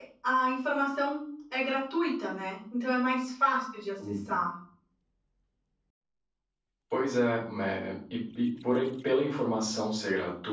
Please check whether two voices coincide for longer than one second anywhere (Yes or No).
No